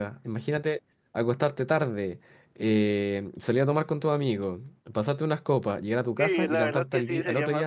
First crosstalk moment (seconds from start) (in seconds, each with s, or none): 6.2 s